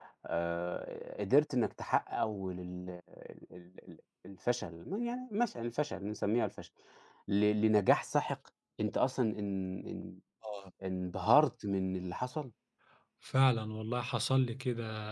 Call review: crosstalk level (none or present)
none